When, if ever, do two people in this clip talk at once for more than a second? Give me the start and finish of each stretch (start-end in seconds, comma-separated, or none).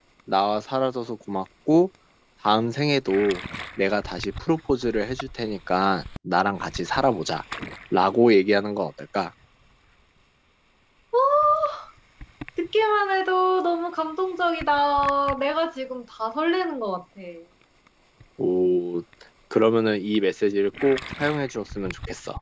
none